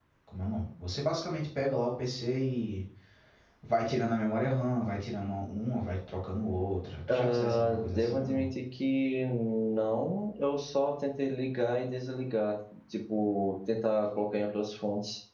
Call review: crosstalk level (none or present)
present